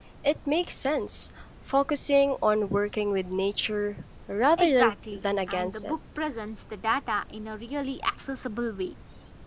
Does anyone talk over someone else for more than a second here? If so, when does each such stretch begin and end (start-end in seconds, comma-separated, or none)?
4.6-5.9